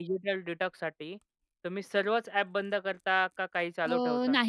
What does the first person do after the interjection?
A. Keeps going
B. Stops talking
B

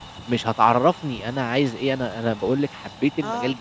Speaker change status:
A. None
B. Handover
A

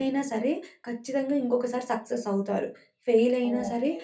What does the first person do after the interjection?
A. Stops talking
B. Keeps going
B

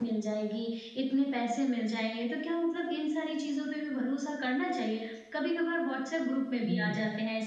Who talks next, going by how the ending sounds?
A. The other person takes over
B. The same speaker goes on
B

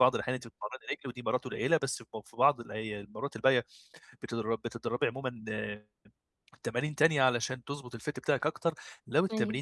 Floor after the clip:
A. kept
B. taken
A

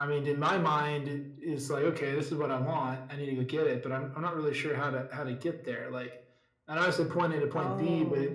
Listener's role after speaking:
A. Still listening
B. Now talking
A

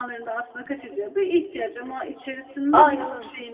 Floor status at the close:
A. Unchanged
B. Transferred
A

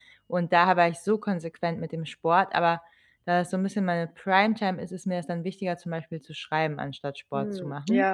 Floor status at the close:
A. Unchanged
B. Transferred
B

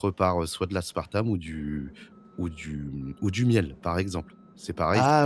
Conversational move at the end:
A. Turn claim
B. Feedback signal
B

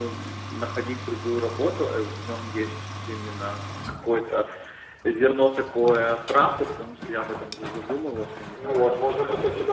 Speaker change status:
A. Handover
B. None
A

